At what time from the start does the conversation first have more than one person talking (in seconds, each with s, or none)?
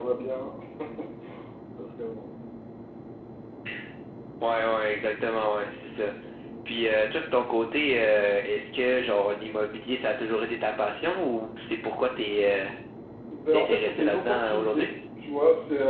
13.5 s